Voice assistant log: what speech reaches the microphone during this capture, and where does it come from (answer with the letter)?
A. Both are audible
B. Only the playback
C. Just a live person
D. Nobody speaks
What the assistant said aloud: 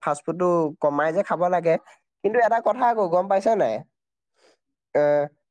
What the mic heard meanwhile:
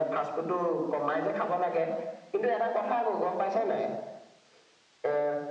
B